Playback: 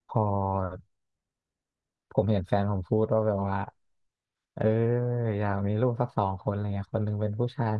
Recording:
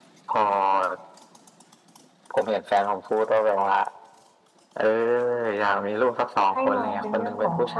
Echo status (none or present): present